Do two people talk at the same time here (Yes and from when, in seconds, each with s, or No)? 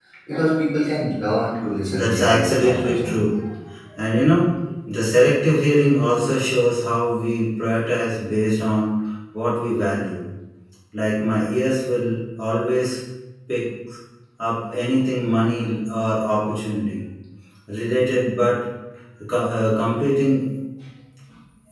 Yes, from 1.9 s